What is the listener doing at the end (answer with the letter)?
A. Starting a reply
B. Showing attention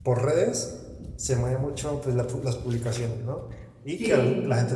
B